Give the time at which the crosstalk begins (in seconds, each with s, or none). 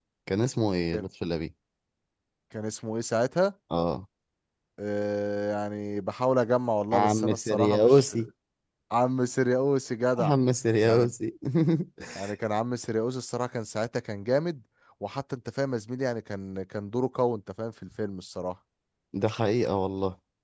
6.9 s